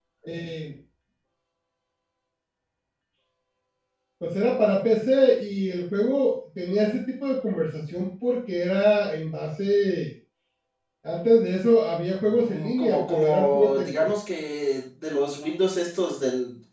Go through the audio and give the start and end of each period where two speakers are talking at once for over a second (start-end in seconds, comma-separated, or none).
12.2-14.1